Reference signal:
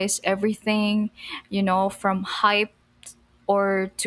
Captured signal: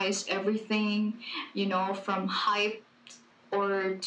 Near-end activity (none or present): none